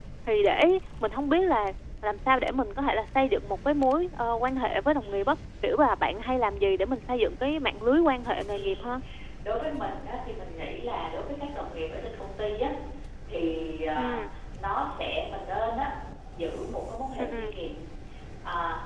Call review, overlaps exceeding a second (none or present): none